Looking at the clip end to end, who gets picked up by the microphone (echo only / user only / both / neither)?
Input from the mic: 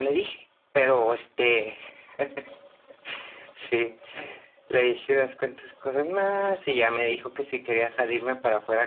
echo only